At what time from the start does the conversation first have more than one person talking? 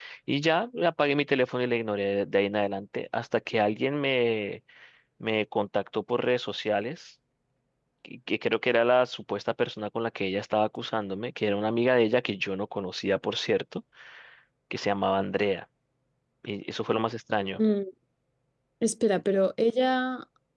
none

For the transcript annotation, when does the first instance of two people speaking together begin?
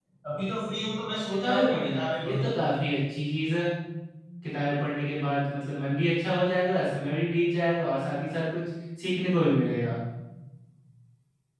1.3 s

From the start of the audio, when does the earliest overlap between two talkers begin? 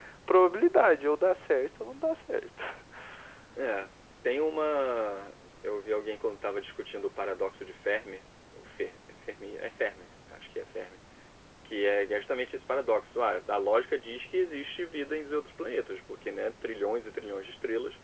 none

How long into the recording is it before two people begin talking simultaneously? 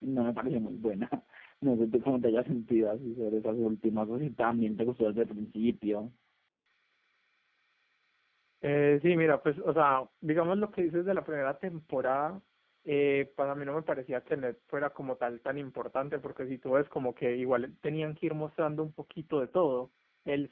none

